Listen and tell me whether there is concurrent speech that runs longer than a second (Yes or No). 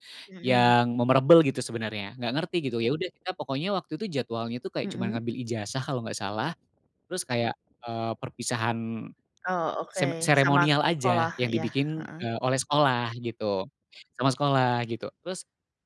Yes